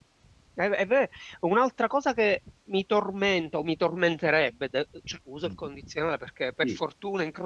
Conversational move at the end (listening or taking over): listening